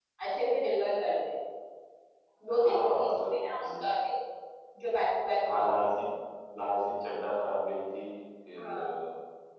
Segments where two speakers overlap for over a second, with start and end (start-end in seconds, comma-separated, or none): 2.6-3.8